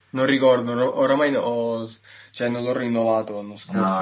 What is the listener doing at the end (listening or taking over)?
taking over